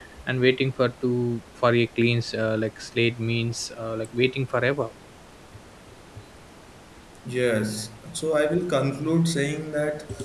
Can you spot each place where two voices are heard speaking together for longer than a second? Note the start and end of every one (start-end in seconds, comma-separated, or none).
none